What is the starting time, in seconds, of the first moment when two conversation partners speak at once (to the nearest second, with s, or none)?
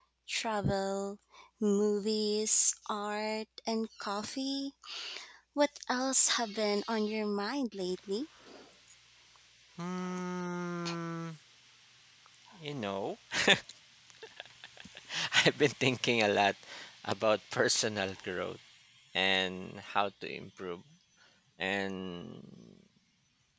none